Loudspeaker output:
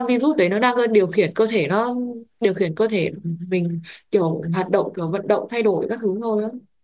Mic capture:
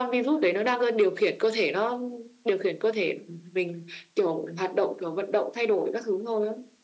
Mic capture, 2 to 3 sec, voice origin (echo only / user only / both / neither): echo only